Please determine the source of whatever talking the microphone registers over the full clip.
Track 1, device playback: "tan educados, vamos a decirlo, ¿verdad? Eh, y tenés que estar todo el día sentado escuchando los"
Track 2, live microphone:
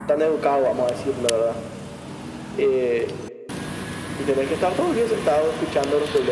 echo only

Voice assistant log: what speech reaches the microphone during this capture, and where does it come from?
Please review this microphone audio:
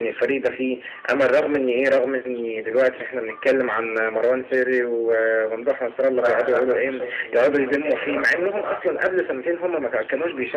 both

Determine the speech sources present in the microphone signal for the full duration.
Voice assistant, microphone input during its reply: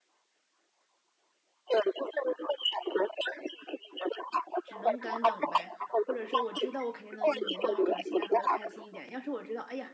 both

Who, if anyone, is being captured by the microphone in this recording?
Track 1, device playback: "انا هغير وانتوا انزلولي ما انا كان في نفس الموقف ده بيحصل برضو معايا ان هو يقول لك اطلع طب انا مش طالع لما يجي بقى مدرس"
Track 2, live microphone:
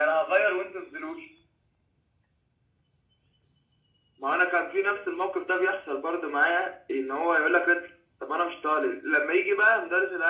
echo only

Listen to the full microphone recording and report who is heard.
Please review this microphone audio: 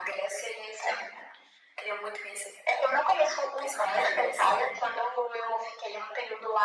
echo only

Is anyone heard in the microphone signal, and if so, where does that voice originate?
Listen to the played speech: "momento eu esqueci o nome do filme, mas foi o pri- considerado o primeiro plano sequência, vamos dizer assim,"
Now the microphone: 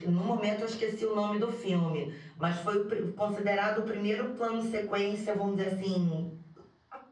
echo only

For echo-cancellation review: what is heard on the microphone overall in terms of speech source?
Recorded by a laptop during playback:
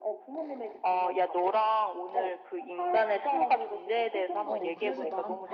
both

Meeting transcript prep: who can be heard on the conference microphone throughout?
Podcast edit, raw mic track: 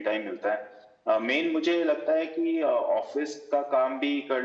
echo only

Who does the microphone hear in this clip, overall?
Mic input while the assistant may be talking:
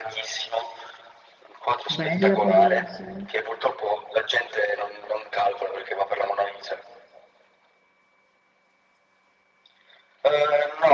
both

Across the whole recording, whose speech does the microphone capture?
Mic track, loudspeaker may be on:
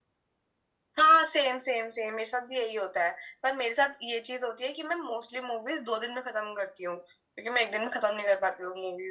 echo only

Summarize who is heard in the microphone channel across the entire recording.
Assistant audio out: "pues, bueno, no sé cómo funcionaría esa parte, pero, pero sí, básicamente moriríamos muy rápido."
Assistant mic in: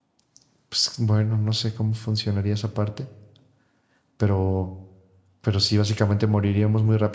echo only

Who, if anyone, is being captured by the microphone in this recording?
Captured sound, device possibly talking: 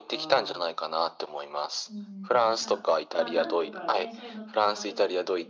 both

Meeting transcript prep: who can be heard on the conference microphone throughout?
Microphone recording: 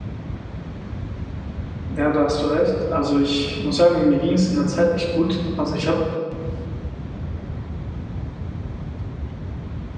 user only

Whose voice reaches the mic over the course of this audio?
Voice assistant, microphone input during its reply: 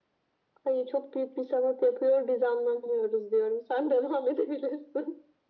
echo only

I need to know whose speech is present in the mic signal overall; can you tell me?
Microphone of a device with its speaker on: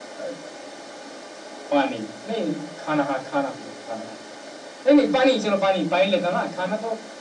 echo only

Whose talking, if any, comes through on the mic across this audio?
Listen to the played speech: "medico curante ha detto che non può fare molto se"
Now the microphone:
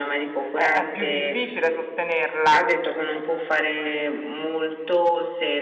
both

